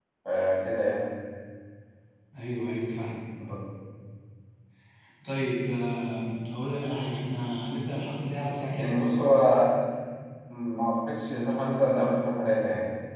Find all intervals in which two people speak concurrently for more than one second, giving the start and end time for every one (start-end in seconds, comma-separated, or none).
none